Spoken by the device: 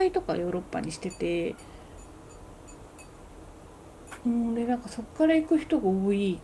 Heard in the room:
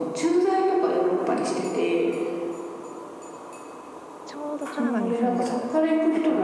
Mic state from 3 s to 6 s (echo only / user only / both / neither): both